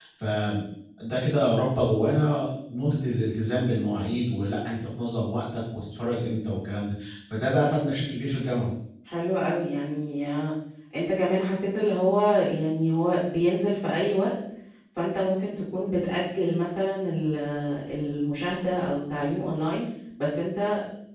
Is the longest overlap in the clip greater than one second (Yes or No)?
No